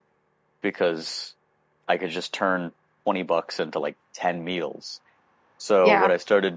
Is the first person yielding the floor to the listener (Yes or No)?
No